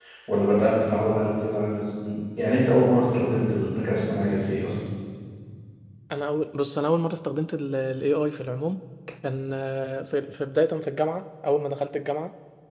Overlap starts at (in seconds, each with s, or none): none